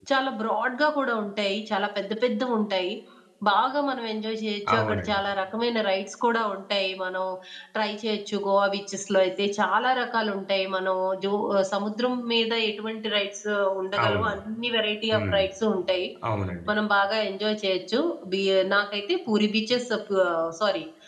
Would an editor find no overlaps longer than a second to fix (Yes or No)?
Yes